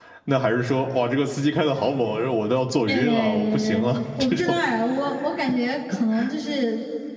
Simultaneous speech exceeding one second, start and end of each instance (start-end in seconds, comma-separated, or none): 2.9-4.6